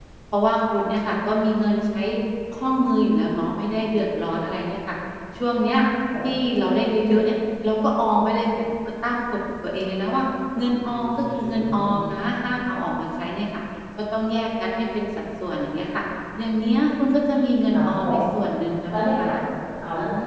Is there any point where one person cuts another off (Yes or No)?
Yes